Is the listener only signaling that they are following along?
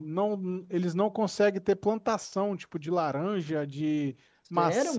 No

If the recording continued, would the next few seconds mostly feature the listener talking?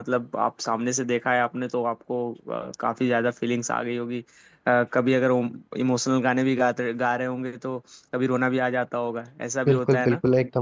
Yes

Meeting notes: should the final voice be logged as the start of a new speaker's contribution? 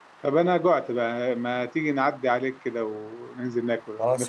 Yes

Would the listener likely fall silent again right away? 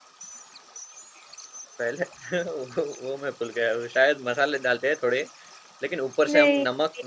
Yes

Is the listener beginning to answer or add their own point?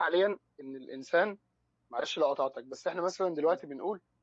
No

